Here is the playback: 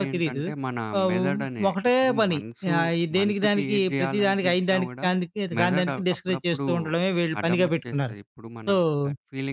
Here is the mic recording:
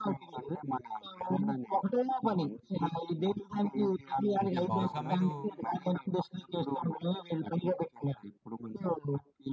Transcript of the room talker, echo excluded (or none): అంటే, బహుశా మీరు